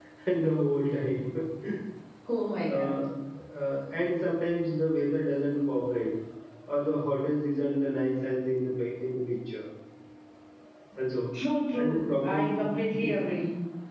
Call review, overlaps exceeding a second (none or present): present